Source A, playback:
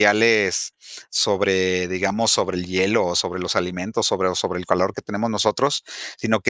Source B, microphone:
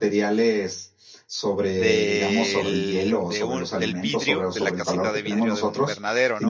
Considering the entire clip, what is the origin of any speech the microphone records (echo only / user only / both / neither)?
both